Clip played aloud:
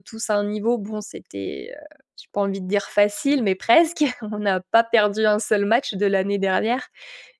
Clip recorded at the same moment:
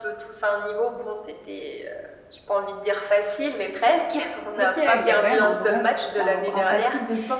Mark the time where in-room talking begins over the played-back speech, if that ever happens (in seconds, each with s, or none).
4.6 s